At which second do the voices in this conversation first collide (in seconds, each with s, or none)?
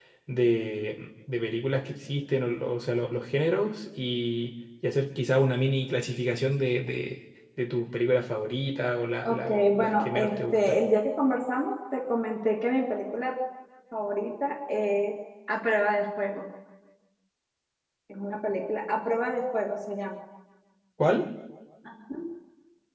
9.2 s